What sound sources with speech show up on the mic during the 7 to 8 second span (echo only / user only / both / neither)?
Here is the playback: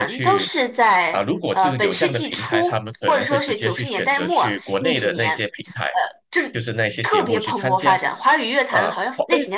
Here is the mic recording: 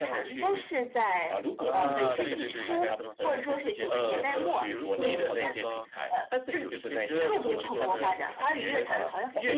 both